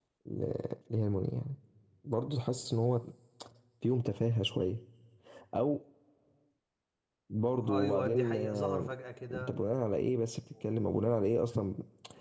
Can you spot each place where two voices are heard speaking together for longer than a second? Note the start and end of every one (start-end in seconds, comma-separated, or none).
7.7-8.9